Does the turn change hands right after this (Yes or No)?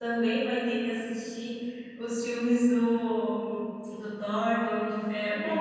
Yes